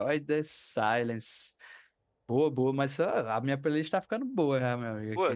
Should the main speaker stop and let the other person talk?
Yes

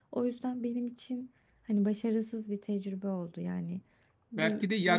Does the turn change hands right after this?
Yes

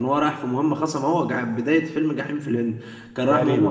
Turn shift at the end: No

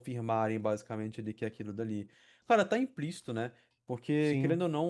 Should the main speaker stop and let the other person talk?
No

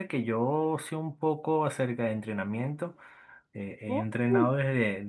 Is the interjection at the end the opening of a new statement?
No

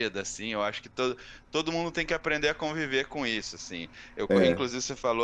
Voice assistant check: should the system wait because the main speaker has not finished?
Yes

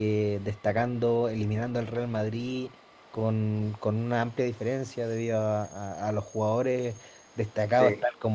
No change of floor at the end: Yes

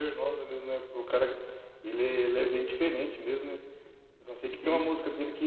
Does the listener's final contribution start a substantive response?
No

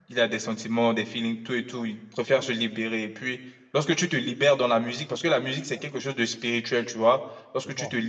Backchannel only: Yes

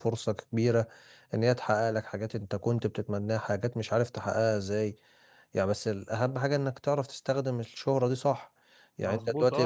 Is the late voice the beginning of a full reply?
Yes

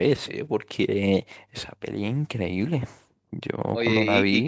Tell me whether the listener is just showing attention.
No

